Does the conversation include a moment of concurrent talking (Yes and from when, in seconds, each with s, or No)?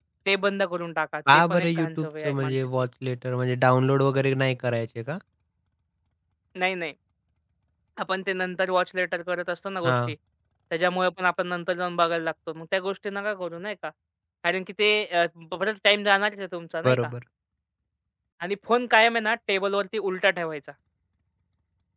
Yes, from 1.3 s